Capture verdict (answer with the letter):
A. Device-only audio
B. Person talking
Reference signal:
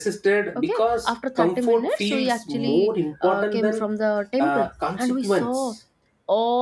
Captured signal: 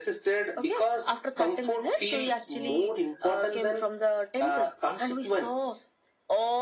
A